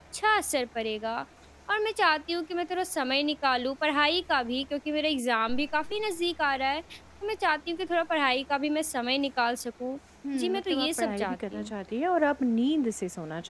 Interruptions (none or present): present